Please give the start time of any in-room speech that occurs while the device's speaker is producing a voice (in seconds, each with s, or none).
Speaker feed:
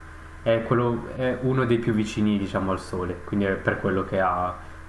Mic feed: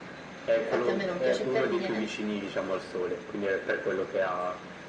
0.5 s